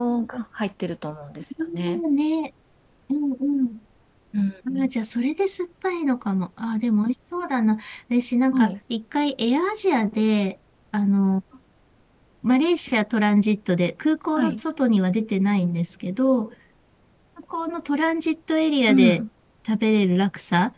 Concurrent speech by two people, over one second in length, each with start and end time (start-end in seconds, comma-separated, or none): none